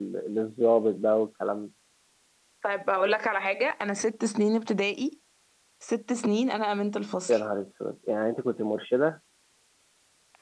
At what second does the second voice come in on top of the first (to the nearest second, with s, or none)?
none